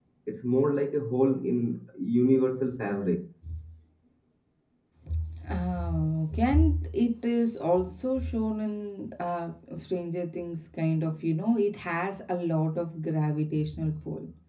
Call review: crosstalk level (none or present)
none